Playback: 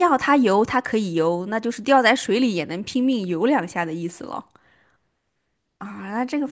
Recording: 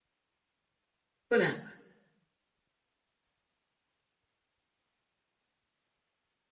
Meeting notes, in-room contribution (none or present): present